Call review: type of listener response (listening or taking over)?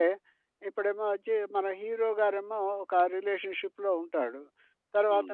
listening